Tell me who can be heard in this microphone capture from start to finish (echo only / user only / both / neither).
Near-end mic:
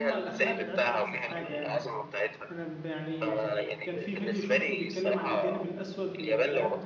both